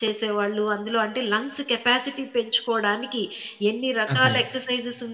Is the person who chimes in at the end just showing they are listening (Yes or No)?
Yes